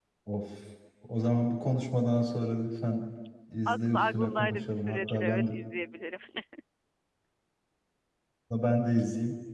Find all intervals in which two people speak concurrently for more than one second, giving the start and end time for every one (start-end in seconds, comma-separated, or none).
3.6-5.4